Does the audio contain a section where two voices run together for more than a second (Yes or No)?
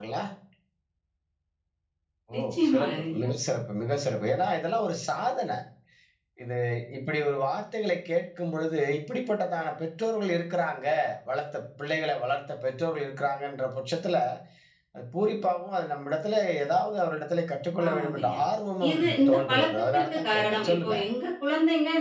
Yes